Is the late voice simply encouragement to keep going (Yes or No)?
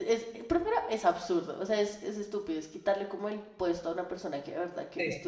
Yes